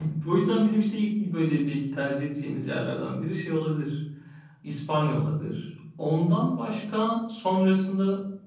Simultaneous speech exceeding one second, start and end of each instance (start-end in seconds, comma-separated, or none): none